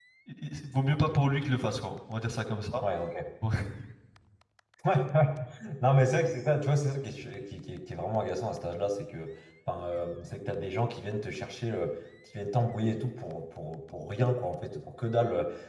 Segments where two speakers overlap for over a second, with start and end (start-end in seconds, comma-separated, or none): none